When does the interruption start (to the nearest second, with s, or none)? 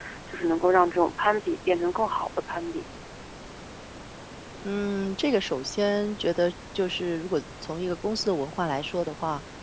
none